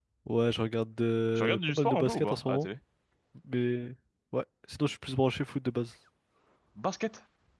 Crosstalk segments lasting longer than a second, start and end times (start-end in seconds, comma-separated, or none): 1.4-2.7